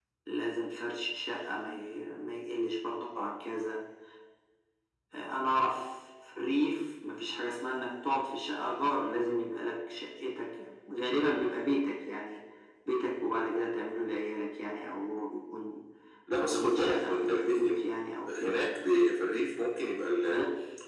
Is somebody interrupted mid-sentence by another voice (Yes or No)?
Yes